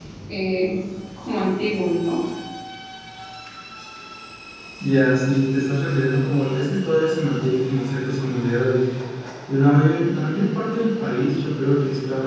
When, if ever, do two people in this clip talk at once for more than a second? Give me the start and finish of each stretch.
none

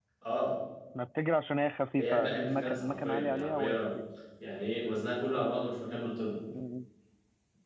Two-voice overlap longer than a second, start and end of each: 2.0-4.0

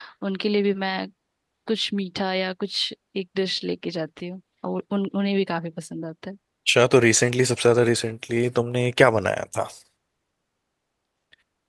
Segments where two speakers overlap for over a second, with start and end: none

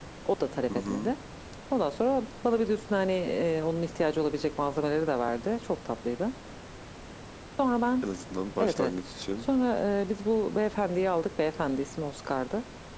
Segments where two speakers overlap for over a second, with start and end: none

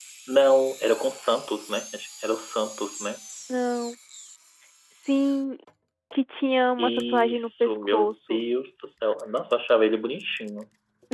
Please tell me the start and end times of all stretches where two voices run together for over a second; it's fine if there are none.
6.8-8.4

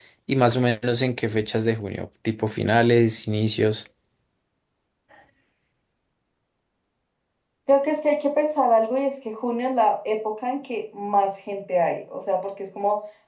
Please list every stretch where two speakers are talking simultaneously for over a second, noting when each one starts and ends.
none

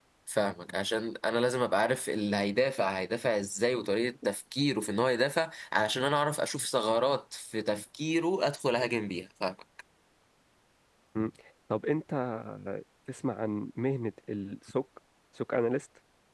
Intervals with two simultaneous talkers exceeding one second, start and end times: none

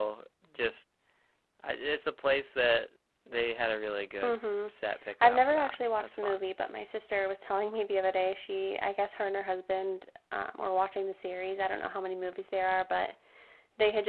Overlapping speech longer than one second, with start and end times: 5.2-6.4

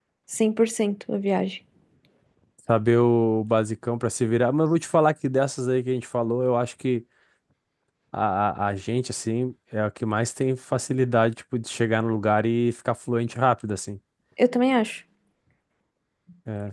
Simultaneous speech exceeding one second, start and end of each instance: none

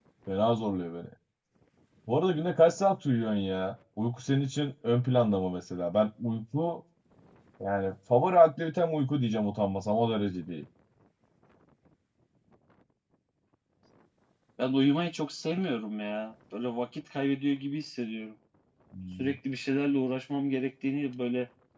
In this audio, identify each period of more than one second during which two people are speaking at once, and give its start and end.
none

